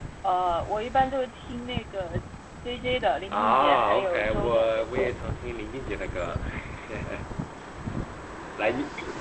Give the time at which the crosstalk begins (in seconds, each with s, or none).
3.3 s